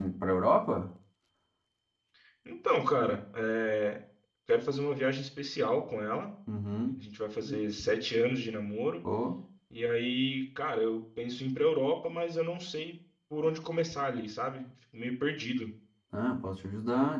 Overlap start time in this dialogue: none

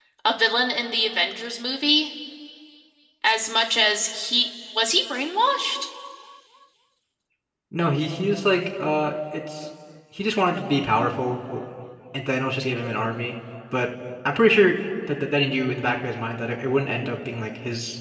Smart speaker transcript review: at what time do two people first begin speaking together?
none

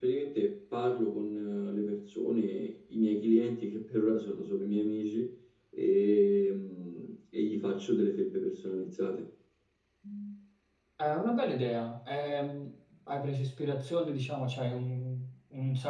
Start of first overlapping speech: none

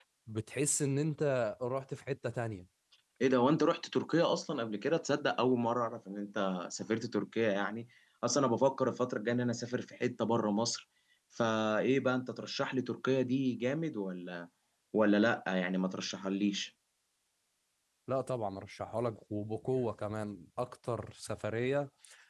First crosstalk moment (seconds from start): none

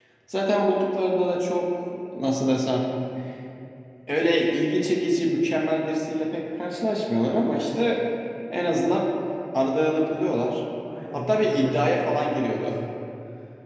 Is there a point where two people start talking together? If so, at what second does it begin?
11.1 s

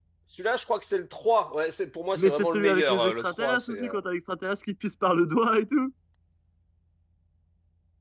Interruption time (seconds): 2.1 s

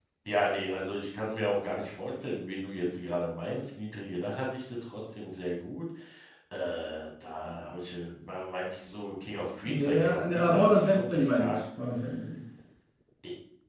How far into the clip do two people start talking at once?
9.6 s

